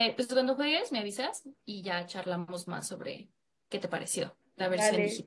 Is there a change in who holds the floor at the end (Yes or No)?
Yes